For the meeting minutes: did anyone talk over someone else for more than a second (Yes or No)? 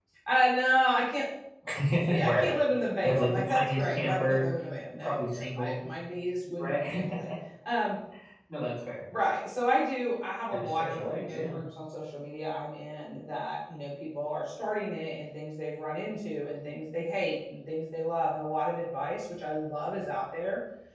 Yes